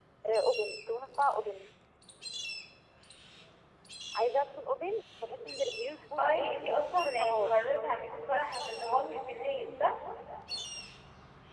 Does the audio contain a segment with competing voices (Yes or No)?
Yes